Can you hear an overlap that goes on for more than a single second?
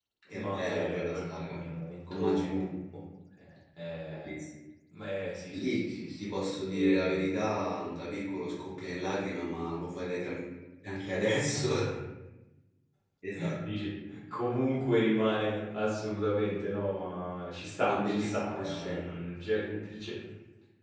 Yes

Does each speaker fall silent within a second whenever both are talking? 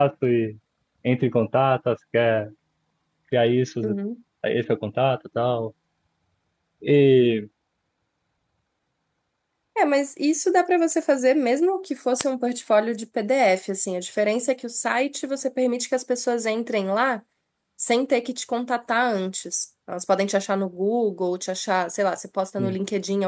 Yes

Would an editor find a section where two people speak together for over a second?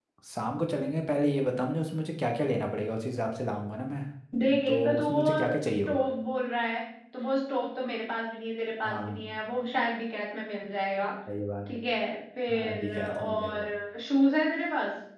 Yes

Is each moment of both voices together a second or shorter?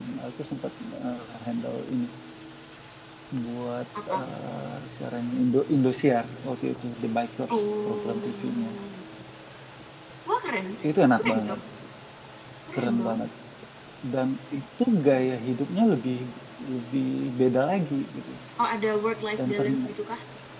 No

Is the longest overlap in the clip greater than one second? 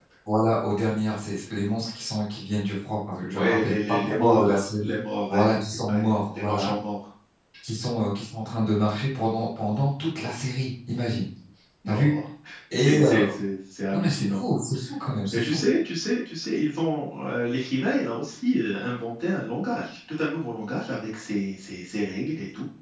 Yes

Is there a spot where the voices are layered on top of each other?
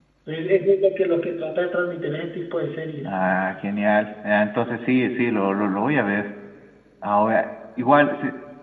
No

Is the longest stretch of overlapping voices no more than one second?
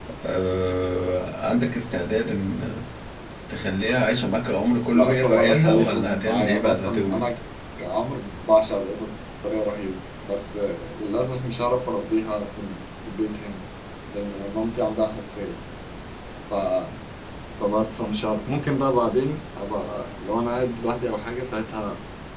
No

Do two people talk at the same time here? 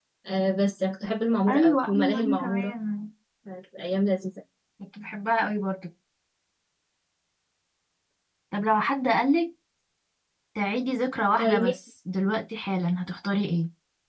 Yes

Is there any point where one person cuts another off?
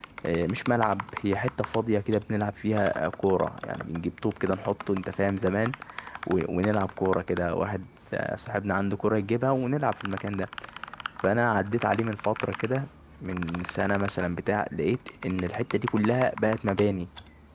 No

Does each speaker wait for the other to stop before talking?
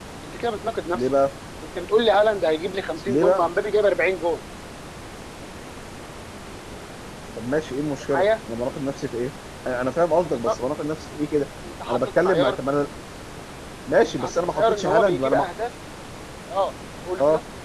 No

